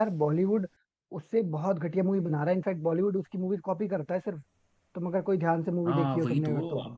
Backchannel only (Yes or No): No